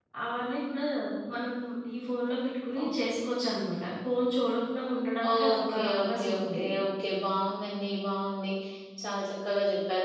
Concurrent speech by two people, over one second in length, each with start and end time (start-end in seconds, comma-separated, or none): 5.3-6.6